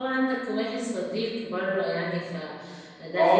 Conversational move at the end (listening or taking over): taking over